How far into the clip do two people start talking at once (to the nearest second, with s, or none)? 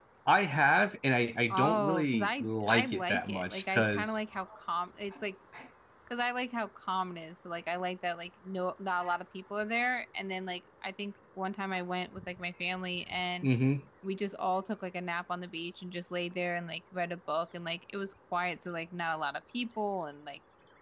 2 s